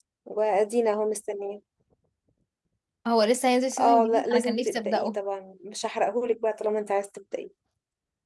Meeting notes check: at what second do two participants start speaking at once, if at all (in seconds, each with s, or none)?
3.8 s